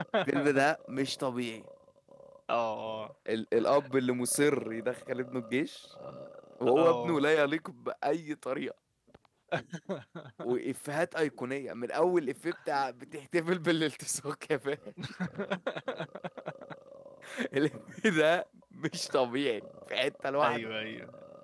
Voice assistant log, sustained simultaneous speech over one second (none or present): none